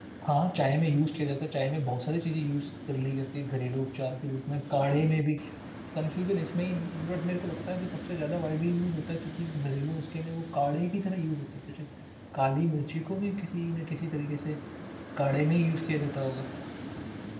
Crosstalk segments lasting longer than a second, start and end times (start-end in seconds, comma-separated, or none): none